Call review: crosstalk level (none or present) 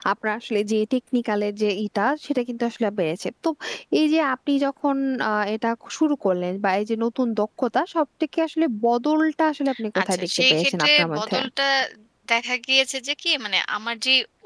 present